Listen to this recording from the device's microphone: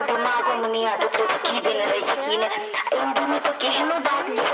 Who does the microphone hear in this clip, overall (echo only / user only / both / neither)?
both